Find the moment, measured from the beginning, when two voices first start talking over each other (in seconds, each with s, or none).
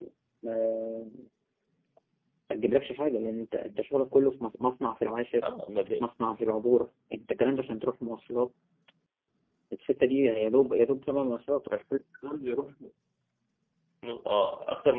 none